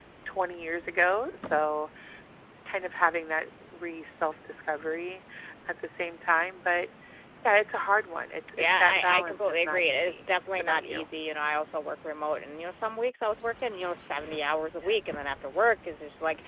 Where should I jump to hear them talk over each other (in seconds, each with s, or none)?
8.6 s